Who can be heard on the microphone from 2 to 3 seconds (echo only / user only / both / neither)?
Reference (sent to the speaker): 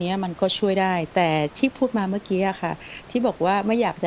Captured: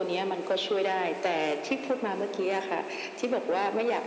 echo only